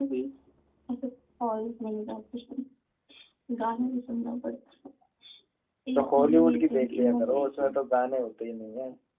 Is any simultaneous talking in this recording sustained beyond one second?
Yes, from 6.0 s

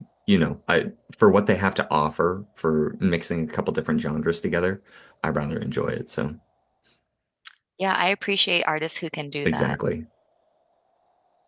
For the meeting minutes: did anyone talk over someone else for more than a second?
No

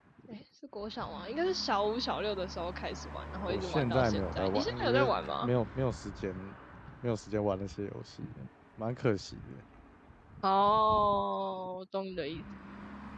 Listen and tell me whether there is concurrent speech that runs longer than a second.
Yes, from 3.5 s

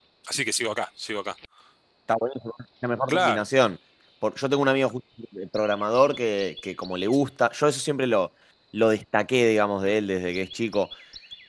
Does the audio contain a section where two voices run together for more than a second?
No

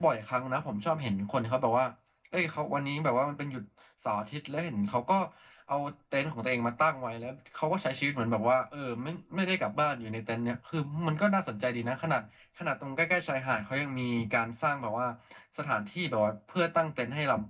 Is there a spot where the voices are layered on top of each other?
No

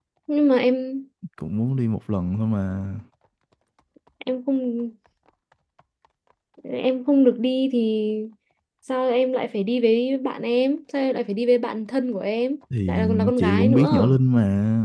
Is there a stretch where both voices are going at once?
Yes, from 12.7 s

